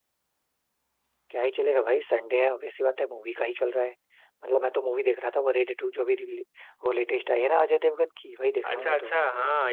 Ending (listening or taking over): taking over